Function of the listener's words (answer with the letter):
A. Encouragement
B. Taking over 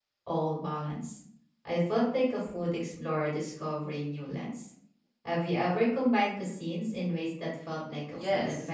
B